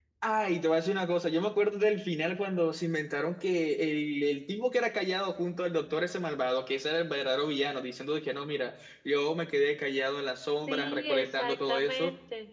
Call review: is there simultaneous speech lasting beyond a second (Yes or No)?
Yes